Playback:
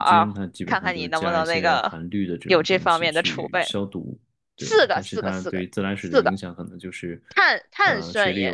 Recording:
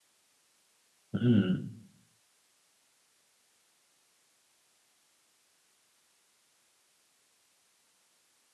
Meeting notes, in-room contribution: present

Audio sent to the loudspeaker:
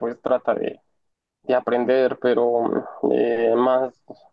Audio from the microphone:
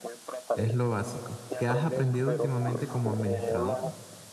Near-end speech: present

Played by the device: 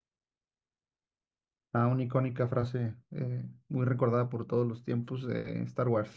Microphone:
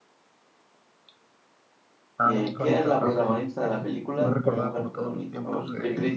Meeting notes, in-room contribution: present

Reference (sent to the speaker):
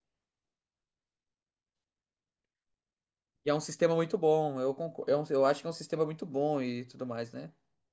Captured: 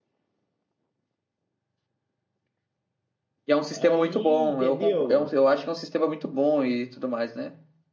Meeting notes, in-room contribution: present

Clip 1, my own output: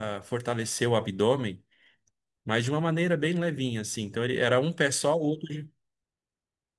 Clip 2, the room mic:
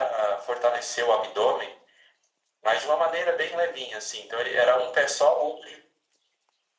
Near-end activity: none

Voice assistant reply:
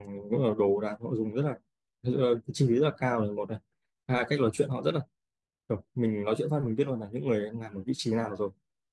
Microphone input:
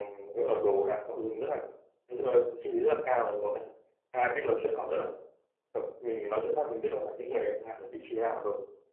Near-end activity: none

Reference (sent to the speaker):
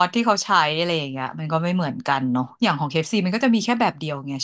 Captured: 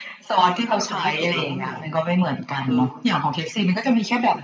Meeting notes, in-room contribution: present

